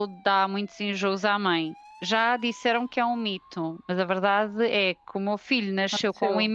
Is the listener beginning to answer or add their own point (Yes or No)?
No